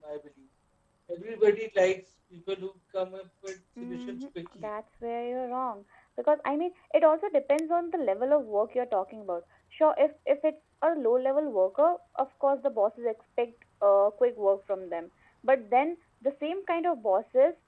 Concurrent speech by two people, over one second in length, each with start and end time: none

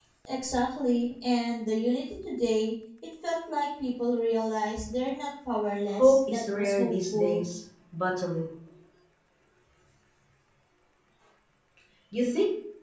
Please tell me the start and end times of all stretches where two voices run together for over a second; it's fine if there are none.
6.0-7.4

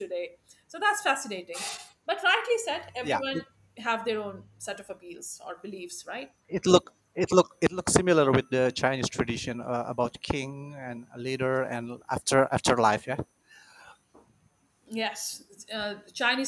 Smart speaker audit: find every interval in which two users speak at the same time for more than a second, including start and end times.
none

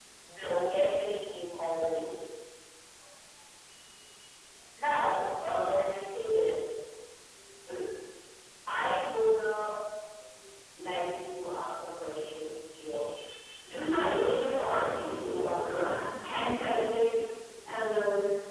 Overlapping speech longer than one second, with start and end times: 13.9-15.9

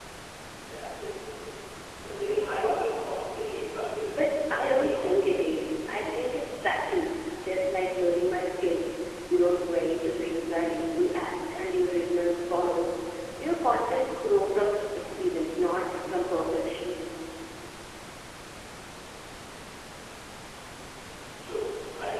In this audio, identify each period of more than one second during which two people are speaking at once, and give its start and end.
4.1-5.4

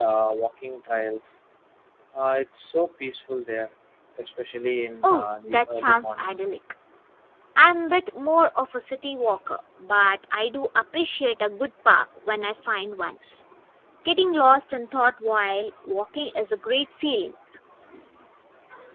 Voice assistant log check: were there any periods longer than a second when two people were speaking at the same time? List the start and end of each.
5.0-6.4

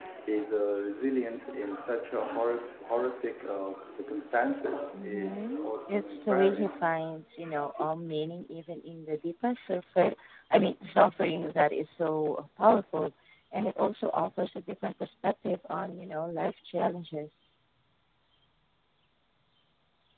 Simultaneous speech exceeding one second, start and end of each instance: 5.0-6.7

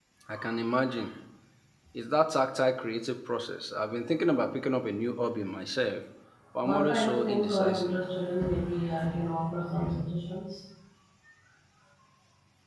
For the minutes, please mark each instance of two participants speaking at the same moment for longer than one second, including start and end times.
6.6-8.0

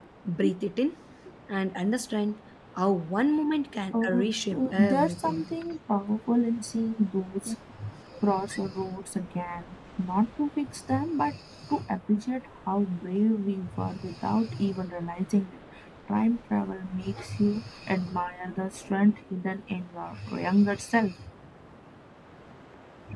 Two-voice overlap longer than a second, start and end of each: 3.9-5.4

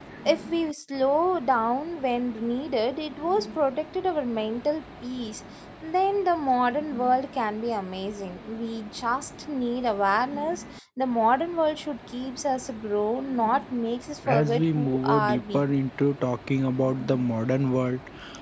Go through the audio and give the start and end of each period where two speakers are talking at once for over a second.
14.3-15.7

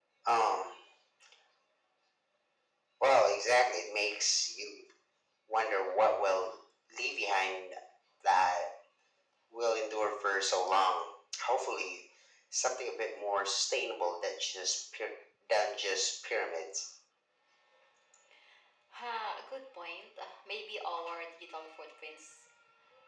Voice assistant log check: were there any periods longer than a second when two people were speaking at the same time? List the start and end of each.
none

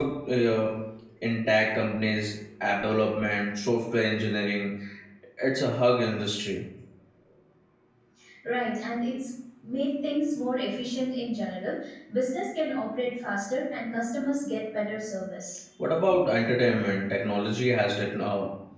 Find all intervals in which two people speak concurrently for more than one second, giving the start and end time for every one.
none

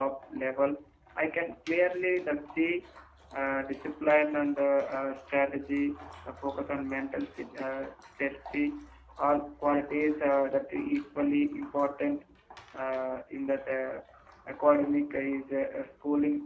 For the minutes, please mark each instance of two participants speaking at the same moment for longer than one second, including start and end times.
none

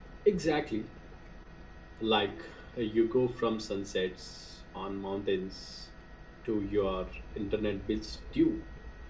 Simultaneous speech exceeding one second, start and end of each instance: none

